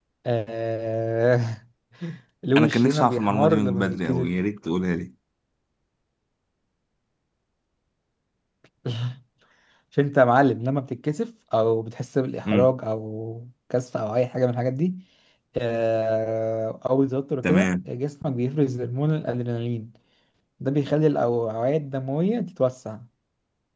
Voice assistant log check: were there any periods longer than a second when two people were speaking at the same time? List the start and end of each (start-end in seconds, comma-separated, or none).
2.6-4.3